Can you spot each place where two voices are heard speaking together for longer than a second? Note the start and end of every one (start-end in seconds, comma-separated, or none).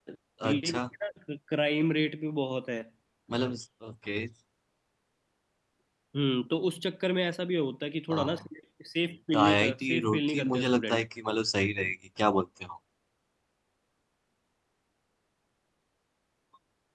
9.3-11.0